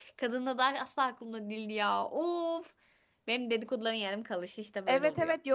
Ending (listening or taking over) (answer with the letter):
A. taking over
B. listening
A